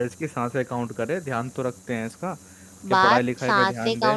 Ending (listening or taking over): taking over